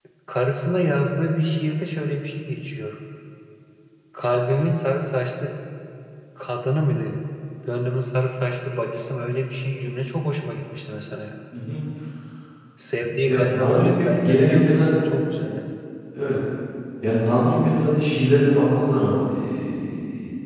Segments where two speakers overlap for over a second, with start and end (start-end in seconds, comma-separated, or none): 13.3-15.1